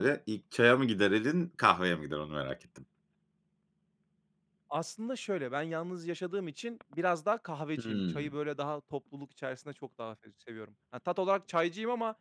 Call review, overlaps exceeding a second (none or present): none